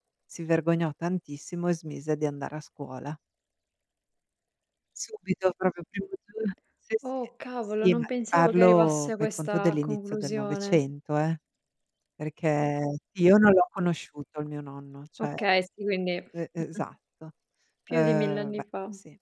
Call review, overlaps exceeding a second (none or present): present